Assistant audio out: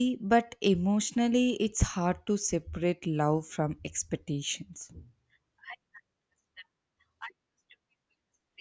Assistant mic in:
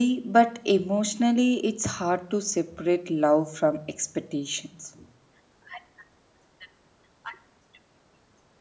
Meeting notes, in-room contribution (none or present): none